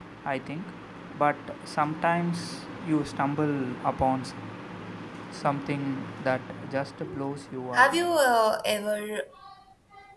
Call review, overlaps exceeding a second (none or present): none